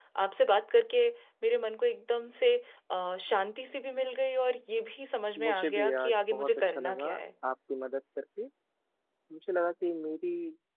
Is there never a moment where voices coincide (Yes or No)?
No